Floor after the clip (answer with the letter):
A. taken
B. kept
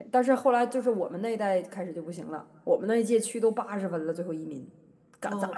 A